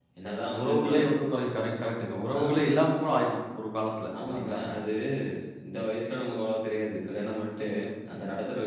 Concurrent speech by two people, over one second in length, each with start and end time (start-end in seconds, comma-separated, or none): none